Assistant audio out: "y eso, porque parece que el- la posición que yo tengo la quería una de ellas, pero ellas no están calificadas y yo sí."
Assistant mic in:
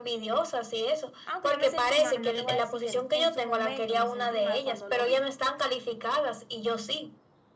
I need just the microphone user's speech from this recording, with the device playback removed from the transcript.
Aunque yo me sentí mal, no te voy a decir que no, en su momento me sentí mal cuando lo vi,

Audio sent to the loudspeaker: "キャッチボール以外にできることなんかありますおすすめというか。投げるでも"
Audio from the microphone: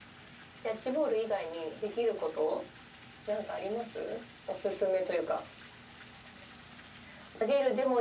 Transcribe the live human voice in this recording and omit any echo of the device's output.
none

